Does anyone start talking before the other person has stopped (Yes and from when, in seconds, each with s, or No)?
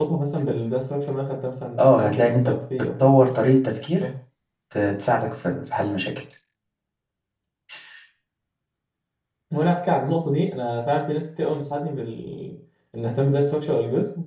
Yes, from 1.8 s